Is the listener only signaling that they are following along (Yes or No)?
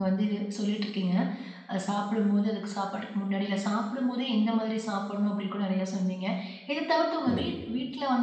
Yes